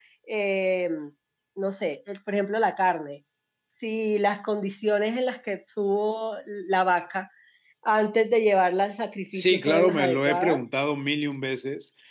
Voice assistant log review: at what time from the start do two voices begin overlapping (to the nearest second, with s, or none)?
9 s